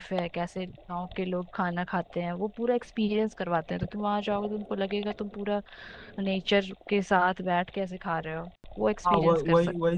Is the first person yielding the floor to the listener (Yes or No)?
Yes